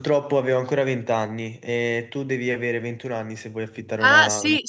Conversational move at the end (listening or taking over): taking over